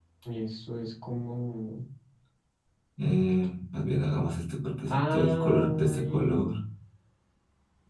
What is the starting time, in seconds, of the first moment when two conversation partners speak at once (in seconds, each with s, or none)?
4.9 s